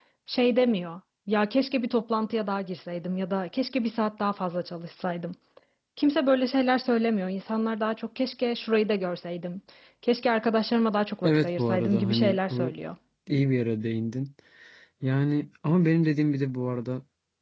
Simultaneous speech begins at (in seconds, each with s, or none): 11.2 s